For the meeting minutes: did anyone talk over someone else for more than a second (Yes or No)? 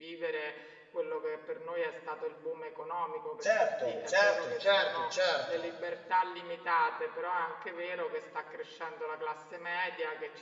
Yes